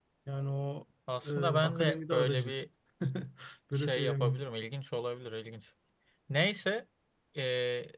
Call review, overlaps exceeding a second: present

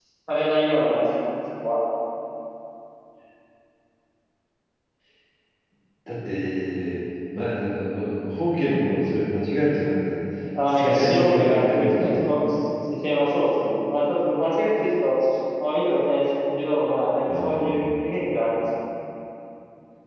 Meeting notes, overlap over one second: present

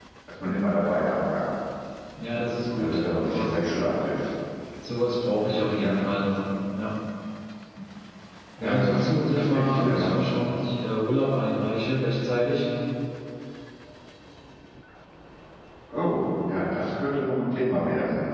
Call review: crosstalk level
present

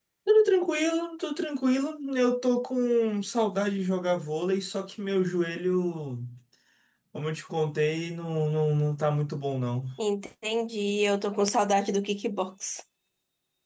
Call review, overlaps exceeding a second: none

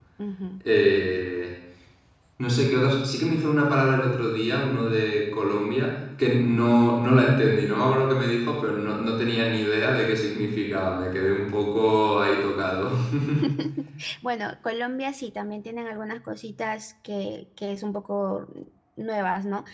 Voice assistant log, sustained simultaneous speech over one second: none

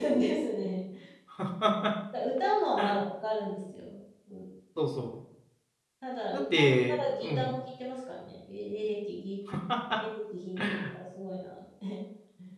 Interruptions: present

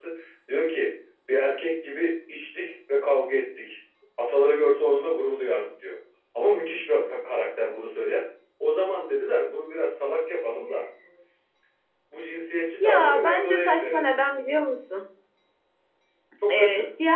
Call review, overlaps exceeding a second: present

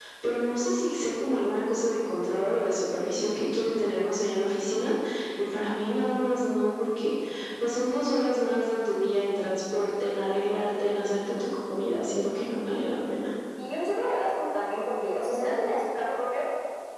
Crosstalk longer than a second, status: none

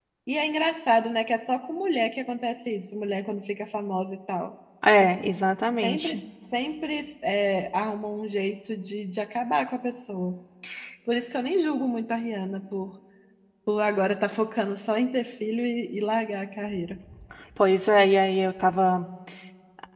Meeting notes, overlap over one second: none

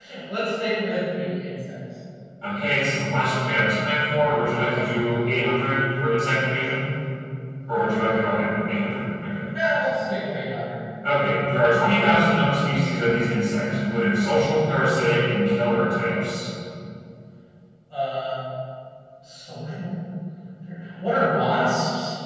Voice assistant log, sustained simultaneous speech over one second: none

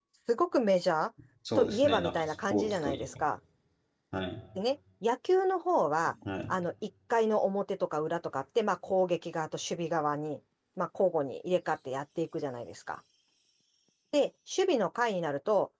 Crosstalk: present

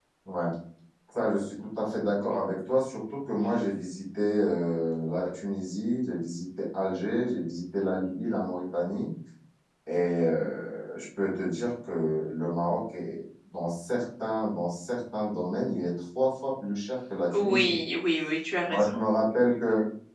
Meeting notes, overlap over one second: none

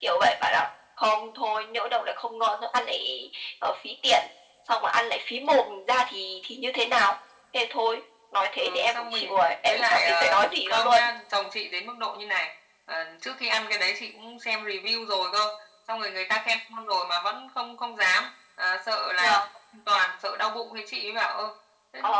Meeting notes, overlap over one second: present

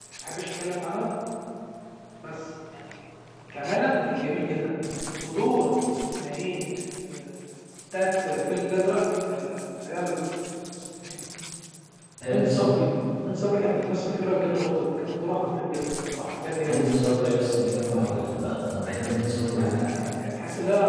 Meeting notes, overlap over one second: none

